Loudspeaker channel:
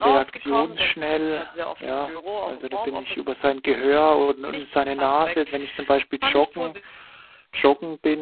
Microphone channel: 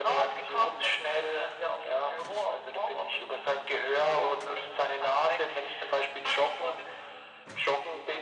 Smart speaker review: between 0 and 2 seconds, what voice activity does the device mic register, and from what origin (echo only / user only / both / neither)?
echo only